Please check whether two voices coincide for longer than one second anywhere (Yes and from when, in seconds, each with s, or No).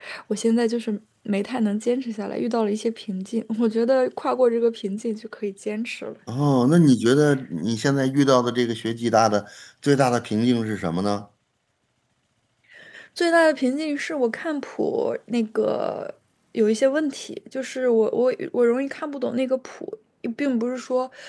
No